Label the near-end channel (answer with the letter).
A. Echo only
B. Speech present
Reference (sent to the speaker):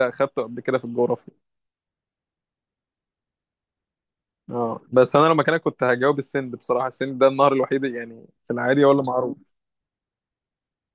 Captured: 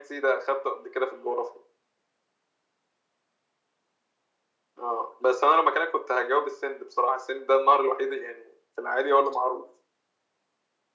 A